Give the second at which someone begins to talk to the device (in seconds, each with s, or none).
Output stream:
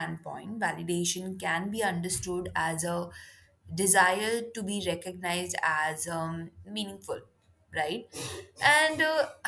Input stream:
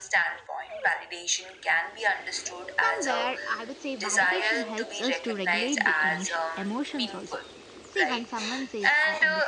2.8 s